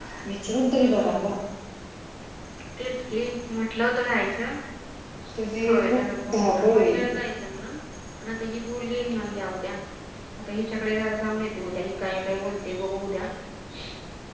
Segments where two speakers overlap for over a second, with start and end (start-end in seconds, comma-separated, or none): 5.7-7.0